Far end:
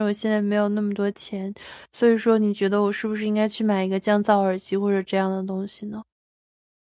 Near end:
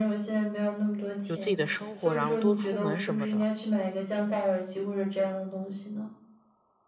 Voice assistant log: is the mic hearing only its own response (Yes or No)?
No